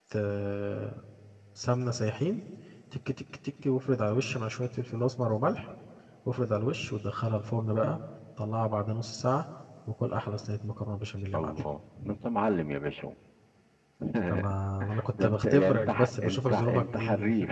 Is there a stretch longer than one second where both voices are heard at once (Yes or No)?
Yes